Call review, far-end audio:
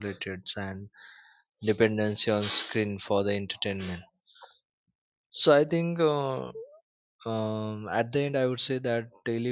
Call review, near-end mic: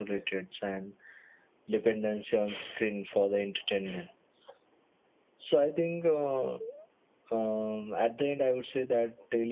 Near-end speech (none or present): none